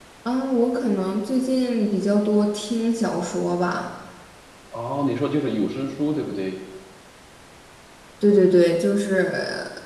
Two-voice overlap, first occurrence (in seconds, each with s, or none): none